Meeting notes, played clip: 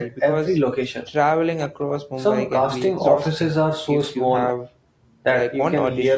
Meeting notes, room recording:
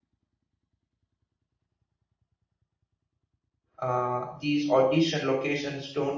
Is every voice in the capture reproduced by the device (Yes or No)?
No